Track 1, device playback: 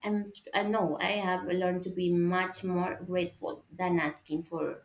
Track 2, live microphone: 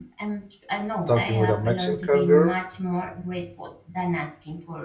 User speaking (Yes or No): Yes